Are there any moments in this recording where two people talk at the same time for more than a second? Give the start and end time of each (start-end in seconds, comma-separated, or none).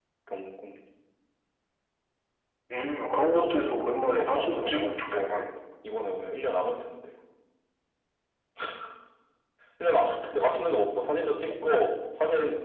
3.4-5.4